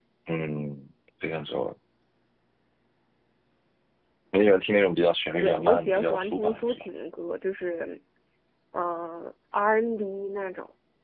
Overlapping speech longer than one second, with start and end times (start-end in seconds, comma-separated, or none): 5.4-6.8